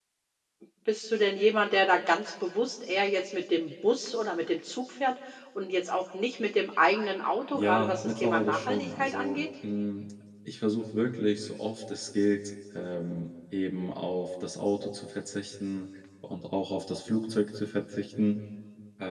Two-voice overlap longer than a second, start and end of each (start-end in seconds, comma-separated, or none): 7.5-9.4